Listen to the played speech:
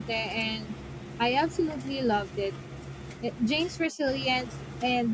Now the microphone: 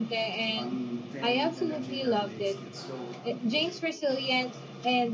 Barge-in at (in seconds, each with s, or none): 0.6 s